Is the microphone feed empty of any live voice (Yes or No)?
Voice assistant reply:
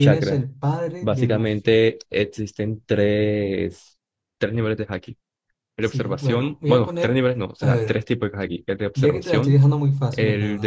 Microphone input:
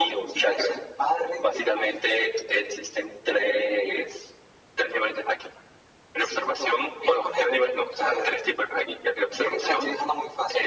Yes